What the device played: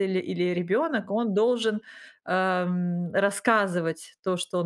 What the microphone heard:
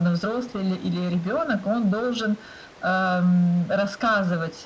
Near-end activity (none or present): none